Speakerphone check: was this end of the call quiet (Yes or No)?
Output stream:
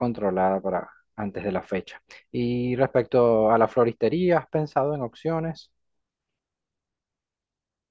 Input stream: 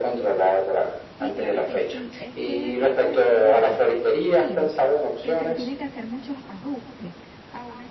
No